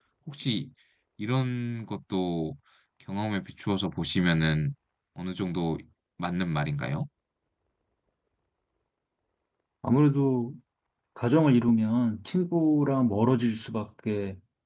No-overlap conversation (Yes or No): Yes